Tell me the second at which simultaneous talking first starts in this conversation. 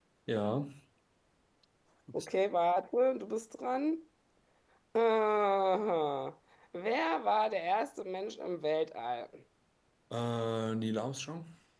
none

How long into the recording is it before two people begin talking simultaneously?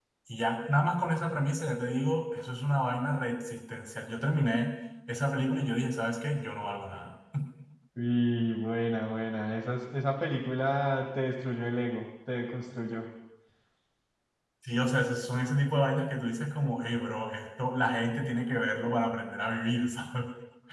none

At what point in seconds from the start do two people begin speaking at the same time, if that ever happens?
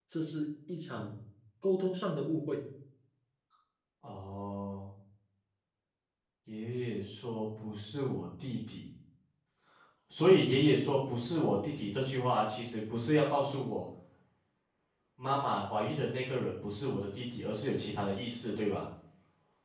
none

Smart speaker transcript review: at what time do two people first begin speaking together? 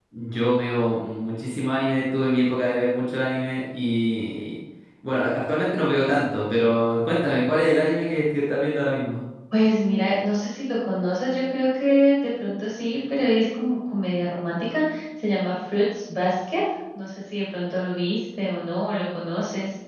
none

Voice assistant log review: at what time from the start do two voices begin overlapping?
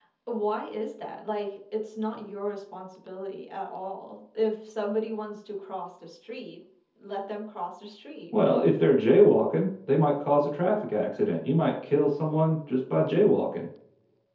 none

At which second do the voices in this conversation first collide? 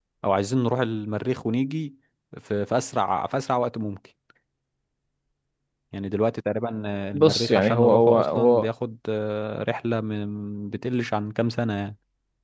7.1 s

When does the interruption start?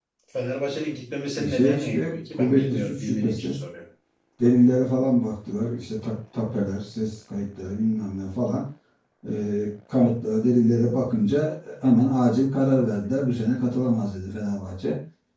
1.4 s

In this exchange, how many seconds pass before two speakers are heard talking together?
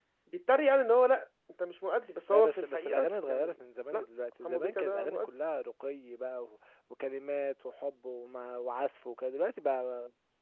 2.3 s

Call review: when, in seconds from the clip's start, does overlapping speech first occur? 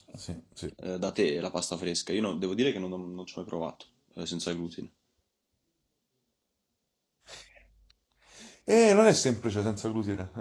none

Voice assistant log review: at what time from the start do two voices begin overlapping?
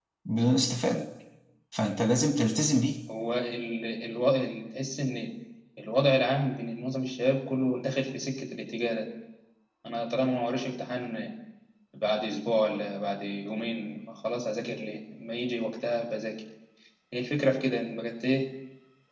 none

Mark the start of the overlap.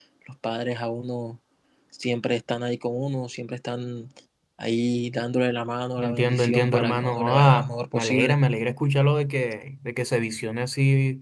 6.0 s

